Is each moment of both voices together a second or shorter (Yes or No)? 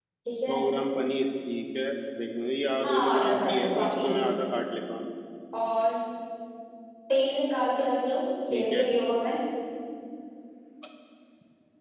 No